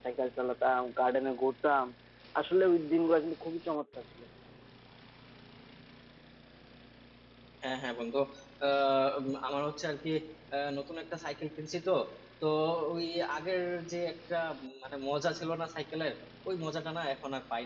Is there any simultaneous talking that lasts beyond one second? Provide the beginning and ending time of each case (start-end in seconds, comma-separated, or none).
none